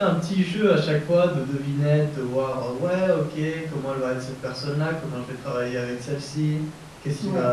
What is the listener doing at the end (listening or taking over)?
listening